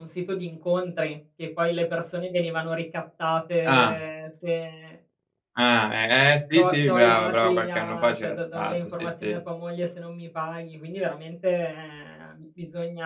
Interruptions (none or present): present